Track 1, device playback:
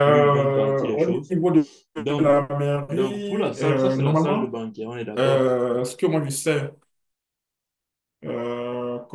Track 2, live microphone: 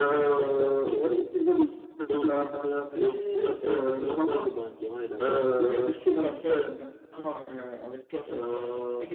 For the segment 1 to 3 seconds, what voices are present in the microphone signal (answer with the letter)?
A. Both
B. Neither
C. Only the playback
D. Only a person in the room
C